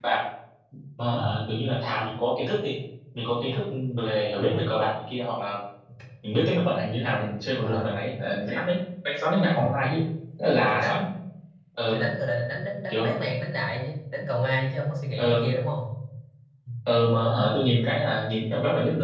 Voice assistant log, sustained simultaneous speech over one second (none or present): none